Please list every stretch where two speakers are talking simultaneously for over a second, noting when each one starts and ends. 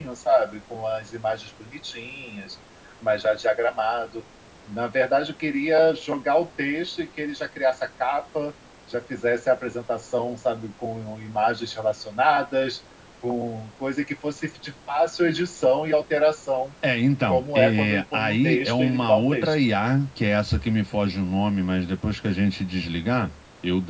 17.3-19.6

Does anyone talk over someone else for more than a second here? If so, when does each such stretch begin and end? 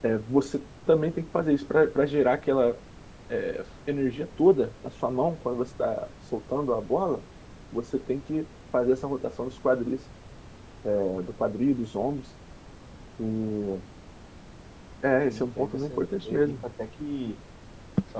15.2-16.6

